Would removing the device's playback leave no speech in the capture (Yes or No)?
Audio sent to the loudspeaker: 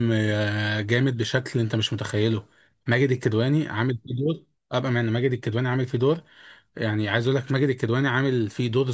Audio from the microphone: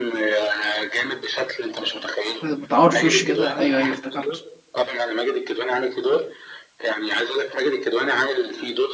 No